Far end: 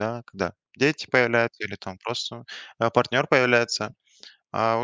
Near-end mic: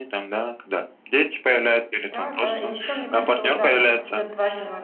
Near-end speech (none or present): present